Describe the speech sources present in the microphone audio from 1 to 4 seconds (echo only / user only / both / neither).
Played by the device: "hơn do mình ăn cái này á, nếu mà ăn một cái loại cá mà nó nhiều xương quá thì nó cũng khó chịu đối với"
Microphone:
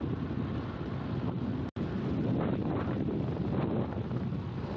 neither